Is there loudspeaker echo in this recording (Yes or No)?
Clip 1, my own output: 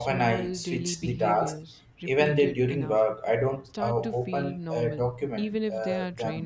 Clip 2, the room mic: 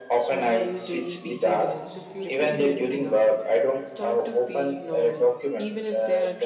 Yes